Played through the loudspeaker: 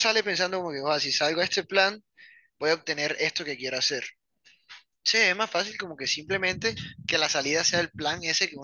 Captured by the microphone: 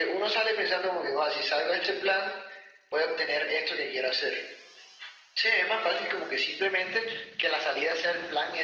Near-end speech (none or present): none